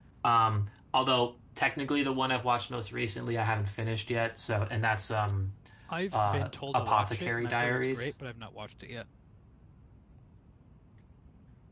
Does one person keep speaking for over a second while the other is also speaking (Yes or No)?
Yes